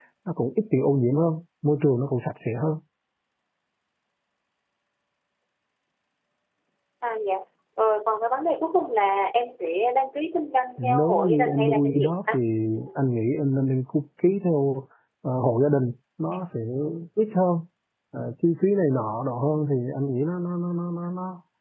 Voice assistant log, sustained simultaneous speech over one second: present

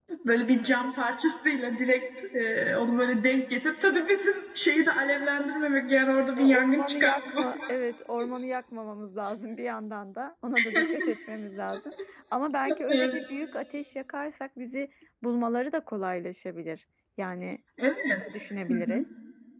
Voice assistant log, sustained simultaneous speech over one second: present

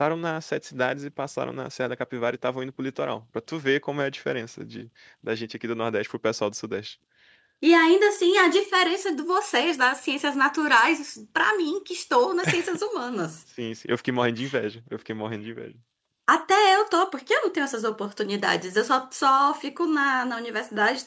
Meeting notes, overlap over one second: none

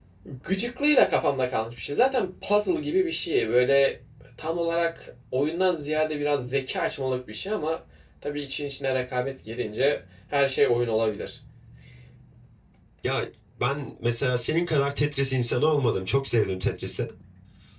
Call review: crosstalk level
none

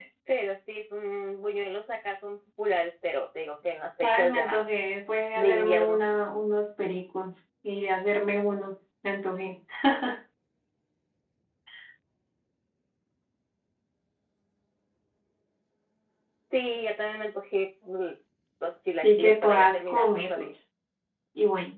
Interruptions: present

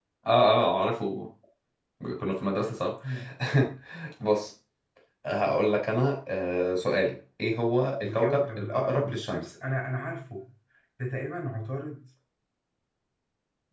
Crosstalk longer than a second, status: present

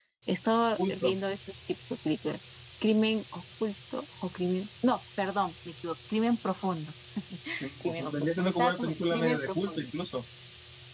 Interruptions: present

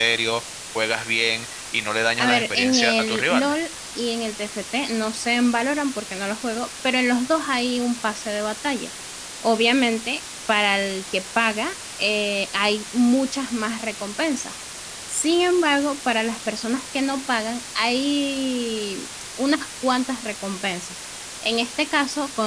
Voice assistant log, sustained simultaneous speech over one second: present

